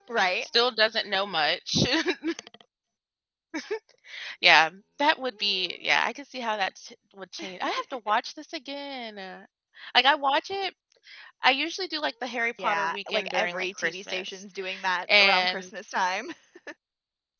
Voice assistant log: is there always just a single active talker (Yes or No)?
No